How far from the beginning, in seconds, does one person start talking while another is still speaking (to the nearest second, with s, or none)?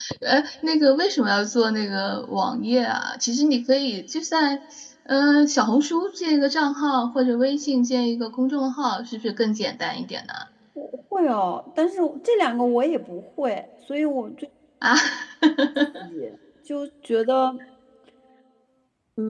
none